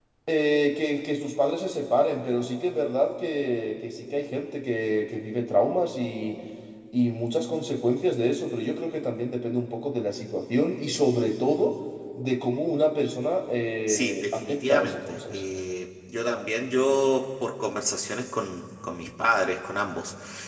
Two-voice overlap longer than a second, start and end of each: 13.9-15.4

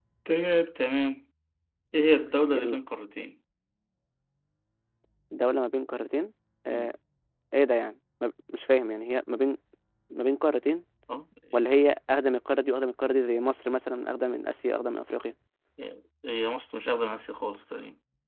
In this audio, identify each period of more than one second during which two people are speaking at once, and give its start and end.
none

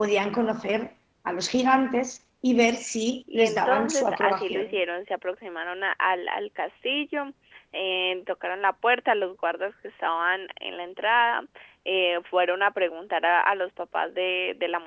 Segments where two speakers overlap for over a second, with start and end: 3.3-4.8

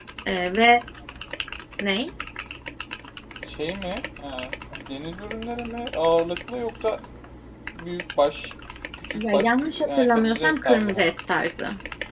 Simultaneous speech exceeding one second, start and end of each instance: 9.1-11.1

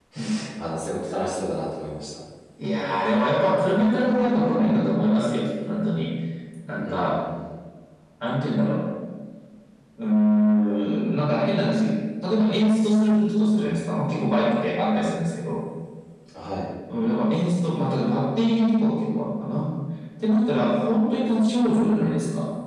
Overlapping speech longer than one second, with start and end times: none

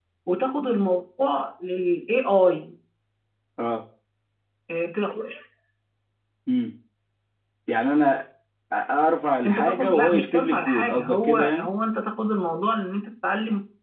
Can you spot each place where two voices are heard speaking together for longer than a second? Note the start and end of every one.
9.4-11.7

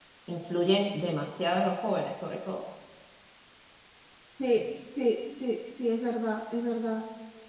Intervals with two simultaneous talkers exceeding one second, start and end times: none

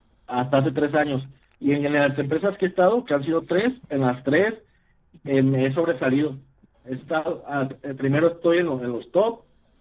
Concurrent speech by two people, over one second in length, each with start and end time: none

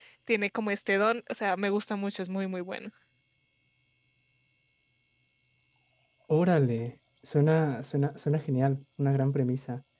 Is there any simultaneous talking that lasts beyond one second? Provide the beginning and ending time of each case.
none

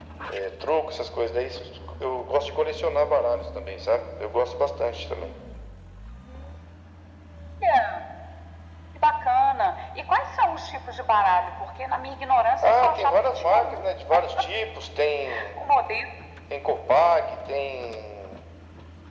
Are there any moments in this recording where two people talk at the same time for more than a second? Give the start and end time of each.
12.6-13.8

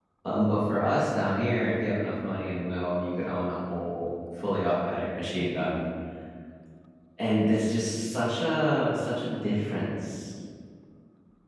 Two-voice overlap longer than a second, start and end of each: none

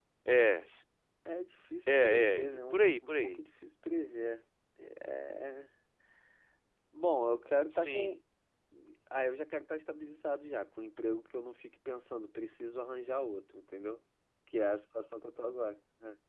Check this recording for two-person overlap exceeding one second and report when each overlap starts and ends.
1.9-3.4

